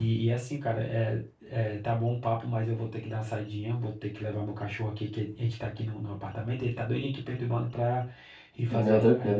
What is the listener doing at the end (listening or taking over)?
listening